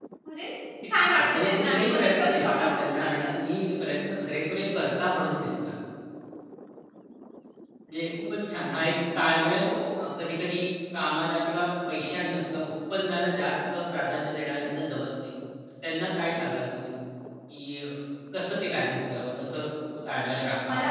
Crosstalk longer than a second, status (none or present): present